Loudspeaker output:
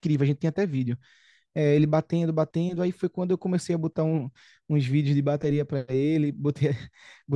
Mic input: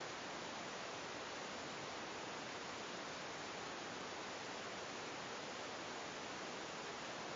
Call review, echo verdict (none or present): none